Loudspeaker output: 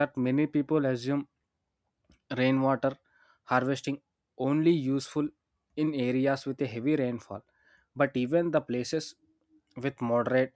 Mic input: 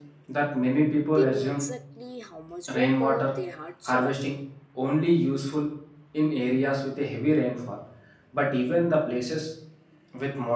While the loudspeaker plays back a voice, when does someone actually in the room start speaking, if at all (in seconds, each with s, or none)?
1.1 s